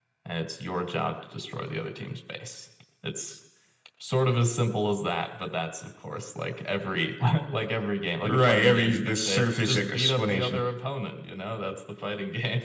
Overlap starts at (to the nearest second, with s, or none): 8 s